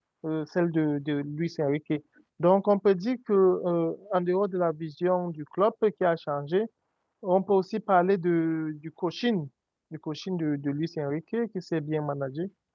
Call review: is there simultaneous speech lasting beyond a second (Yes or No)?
No